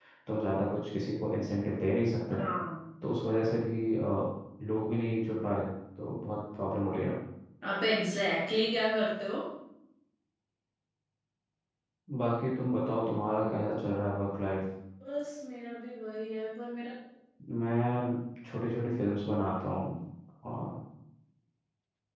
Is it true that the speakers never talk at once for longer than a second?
Yes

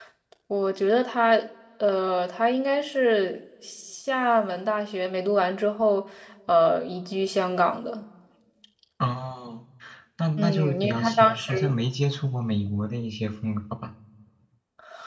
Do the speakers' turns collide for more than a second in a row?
Yes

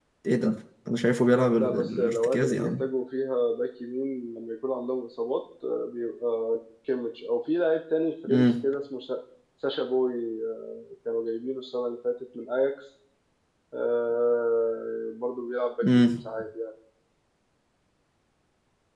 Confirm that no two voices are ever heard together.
No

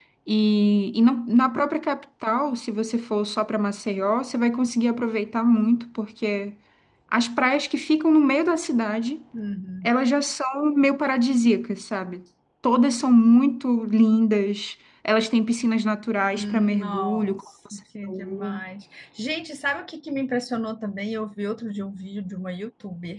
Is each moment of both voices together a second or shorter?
No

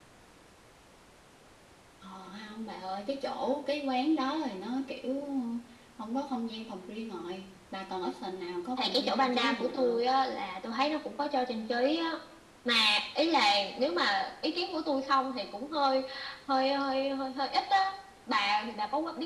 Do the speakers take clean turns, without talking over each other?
No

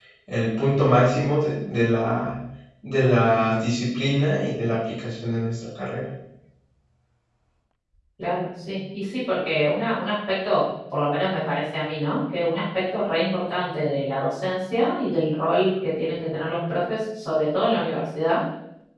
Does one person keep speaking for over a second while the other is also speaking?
No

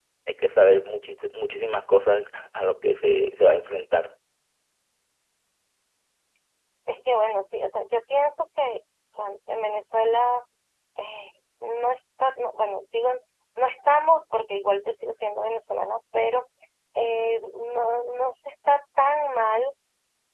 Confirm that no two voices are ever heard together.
Yes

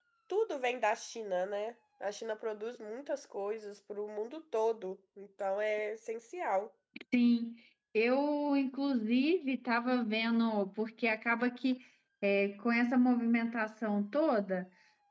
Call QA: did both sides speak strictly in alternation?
Yes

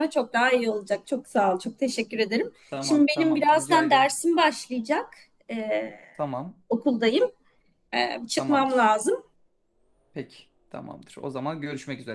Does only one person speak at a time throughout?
No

